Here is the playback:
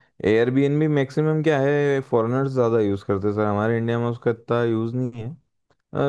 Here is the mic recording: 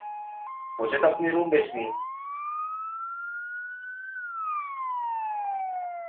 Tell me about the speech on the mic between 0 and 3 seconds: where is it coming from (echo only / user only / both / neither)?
user only